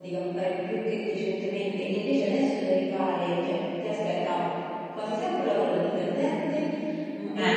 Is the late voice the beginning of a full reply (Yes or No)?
No